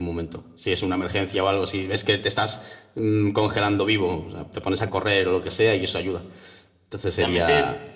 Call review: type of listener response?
taking over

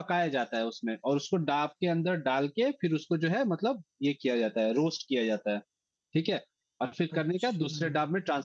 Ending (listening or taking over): listening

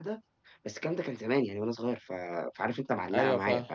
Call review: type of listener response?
listening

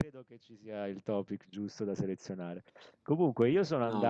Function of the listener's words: listening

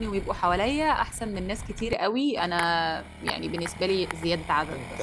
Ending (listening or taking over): taking over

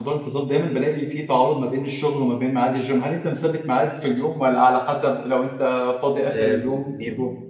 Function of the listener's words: taking over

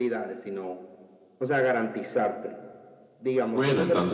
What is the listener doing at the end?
taking over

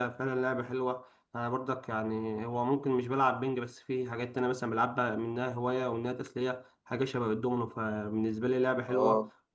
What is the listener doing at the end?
taking over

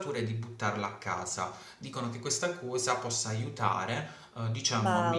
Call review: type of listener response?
listening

